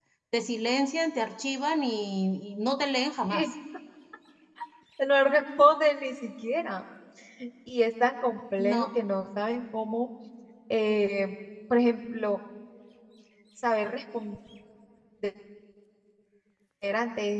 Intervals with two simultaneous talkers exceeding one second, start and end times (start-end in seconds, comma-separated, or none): none